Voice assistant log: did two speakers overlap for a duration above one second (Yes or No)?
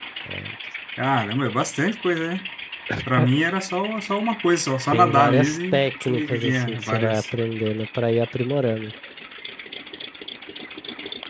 Yes